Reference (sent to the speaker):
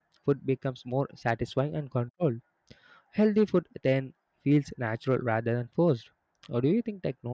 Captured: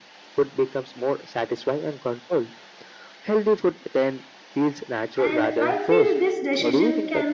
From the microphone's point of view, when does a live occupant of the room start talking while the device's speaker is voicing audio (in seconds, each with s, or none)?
5.2 s